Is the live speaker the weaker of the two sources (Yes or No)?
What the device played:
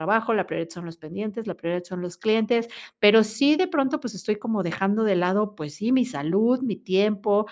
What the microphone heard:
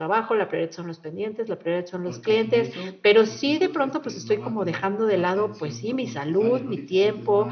Yes